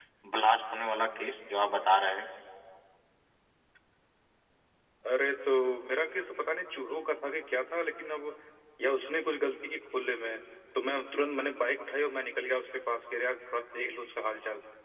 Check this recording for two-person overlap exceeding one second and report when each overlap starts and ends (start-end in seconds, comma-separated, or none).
none